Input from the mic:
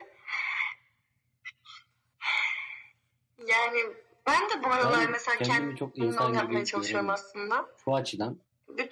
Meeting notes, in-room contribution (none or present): present